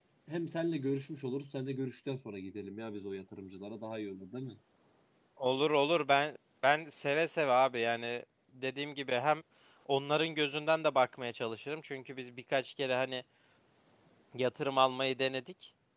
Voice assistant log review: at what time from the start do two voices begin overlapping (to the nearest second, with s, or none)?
none